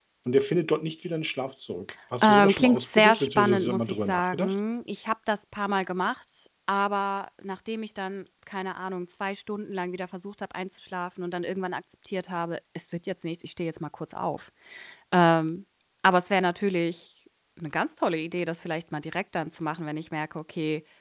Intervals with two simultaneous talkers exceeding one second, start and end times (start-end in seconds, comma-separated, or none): 2.2-4.5